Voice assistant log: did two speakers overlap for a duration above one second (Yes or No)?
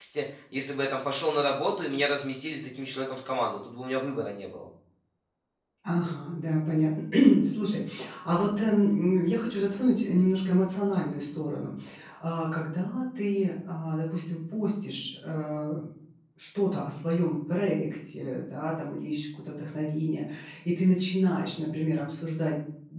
No